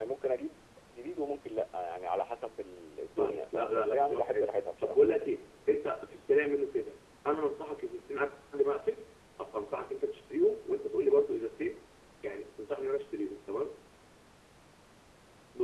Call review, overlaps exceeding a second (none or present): present